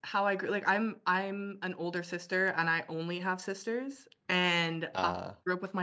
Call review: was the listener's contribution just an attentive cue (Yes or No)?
Yes